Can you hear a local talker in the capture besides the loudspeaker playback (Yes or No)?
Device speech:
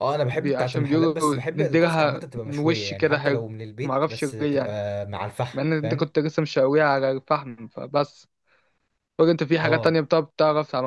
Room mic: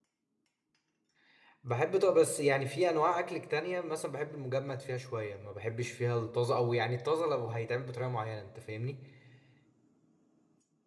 Yes